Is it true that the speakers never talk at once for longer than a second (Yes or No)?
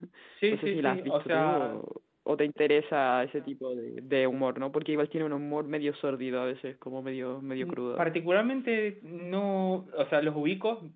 No